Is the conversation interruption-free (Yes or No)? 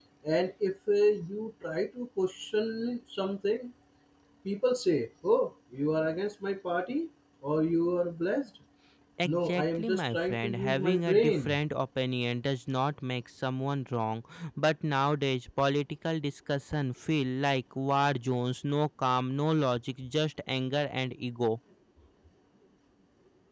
No